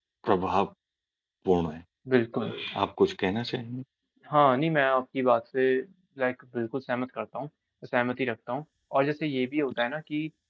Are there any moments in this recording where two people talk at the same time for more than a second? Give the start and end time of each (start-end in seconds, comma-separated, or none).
none